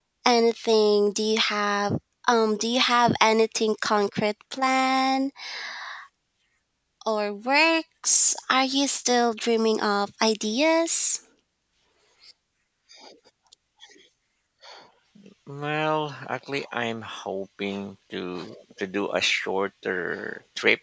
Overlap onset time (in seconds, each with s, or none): none